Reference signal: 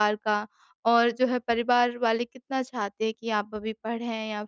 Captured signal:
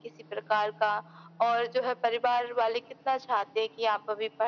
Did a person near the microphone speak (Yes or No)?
No